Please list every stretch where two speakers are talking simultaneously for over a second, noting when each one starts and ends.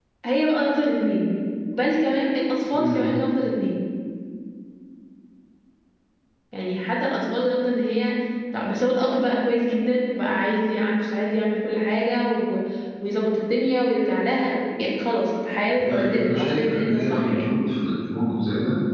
15.8-17.5

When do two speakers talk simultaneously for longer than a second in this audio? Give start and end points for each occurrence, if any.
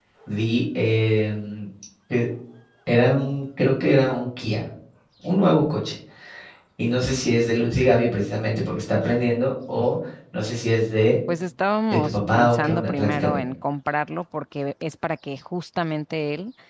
11.9-13.4

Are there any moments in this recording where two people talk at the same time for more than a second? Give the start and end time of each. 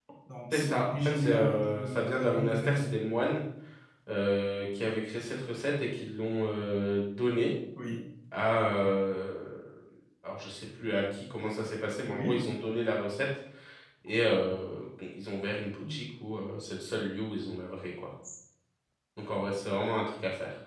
0.5-2.9

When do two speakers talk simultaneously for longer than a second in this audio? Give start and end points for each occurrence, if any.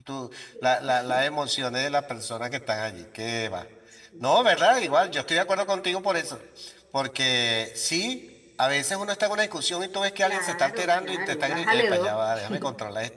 10.2-12.2

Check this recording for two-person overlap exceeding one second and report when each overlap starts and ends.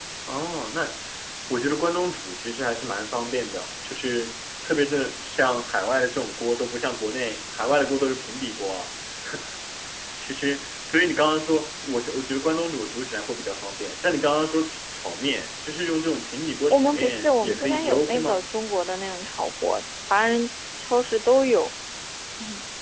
16.7-18.4

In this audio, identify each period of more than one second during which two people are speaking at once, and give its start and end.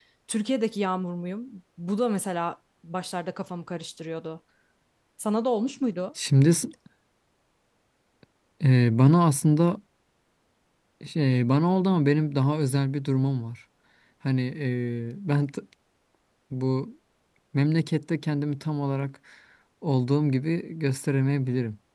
none

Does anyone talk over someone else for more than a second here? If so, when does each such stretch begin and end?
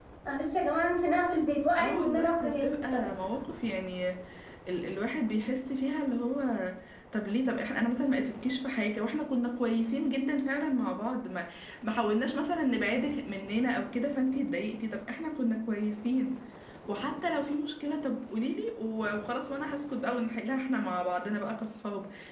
1.7-3.1

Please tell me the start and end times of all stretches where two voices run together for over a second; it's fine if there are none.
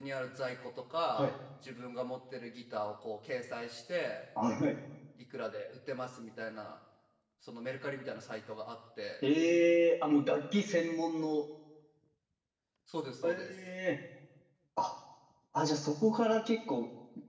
none

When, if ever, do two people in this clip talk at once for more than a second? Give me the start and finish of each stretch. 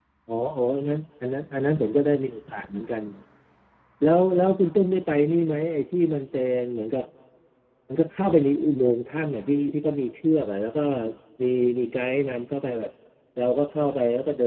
none

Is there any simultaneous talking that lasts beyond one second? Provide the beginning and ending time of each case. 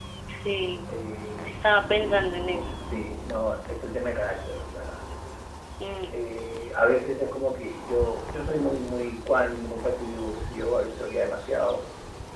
none

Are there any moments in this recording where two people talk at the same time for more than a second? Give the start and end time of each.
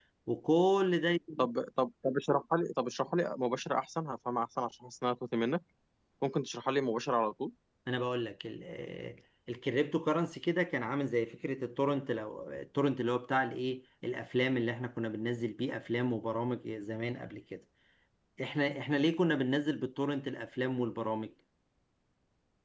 none

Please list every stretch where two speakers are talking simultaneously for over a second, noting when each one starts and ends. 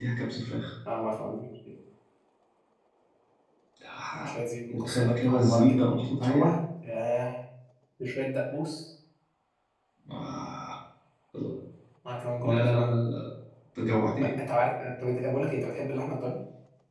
4.7-6.5

